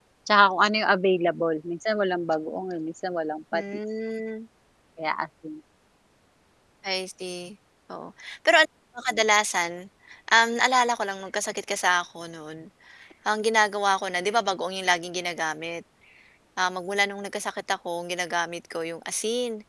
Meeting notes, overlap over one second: none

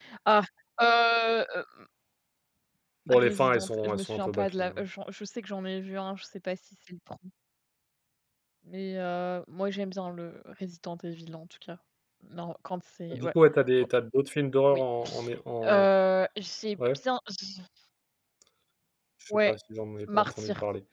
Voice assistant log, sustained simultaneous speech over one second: present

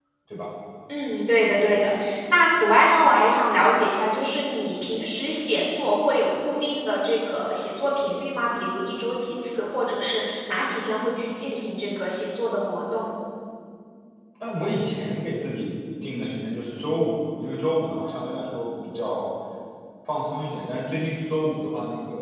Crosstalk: none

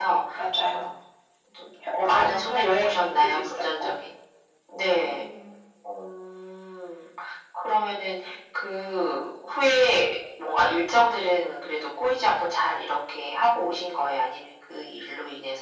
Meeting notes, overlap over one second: present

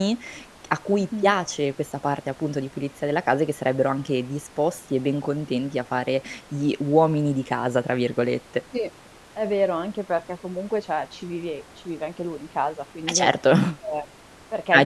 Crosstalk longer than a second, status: none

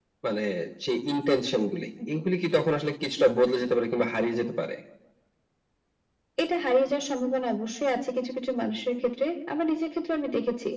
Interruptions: none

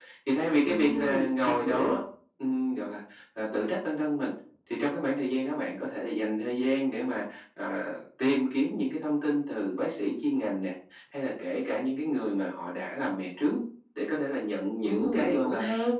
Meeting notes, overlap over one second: present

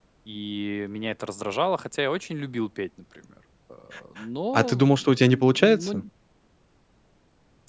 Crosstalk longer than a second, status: present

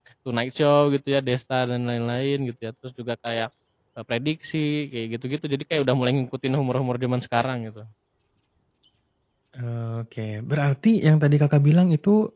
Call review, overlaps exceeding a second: none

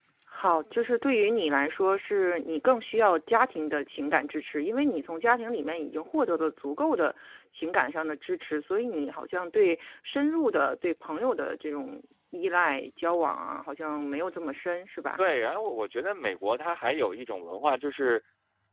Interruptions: none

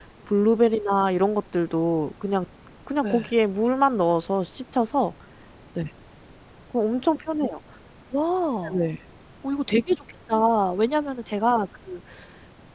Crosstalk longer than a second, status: none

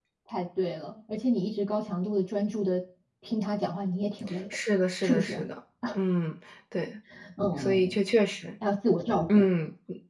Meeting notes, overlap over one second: none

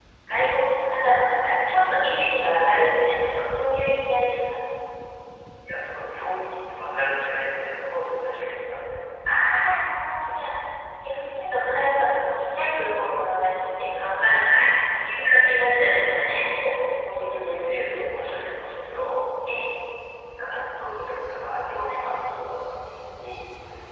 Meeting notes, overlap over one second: none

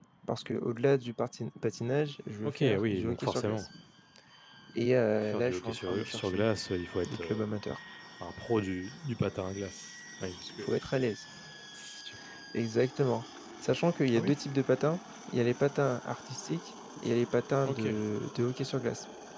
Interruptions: present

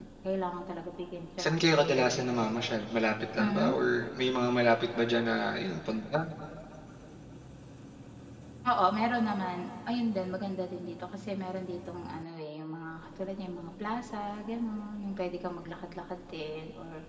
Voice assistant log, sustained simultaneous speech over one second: none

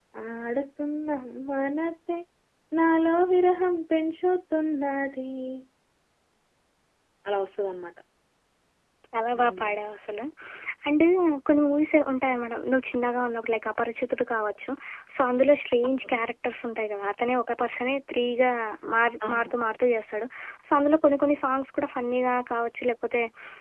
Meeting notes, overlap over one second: none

